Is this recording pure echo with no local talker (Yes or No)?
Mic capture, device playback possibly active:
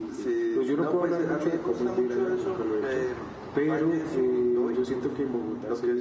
Yes